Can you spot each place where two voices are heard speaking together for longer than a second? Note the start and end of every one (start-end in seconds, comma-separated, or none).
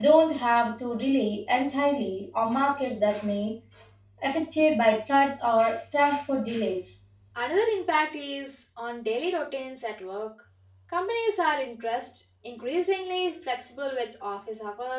none